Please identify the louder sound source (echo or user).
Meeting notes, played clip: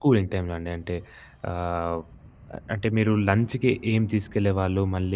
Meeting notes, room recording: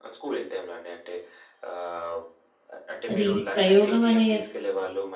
user